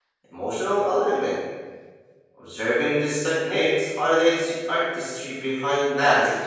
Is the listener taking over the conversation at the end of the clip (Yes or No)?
Yes